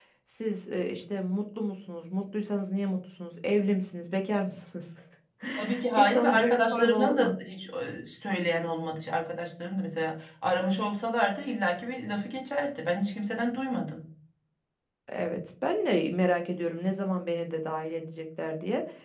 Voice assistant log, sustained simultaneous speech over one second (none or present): present